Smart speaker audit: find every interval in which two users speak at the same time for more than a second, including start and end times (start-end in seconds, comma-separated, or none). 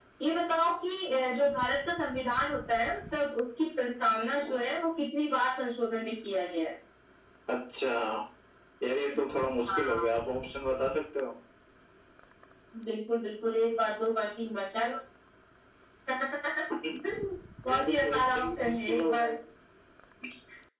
17.6-19.3